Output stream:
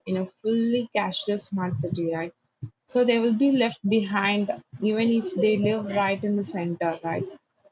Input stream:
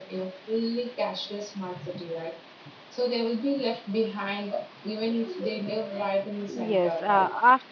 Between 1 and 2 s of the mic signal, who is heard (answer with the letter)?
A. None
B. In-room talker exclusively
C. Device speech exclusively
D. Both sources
C